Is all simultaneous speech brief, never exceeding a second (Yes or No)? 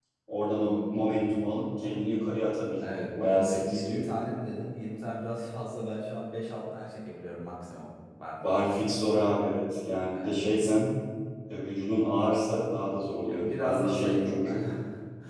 No